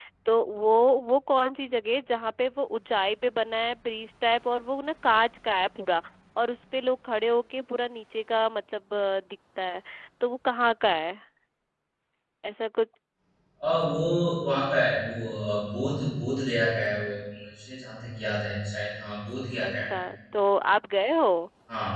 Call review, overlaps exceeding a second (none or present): none